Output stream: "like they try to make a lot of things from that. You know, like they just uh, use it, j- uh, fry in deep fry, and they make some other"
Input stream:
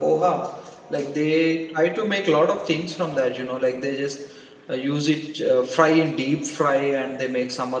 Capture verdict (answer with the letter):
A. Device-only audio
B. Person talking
A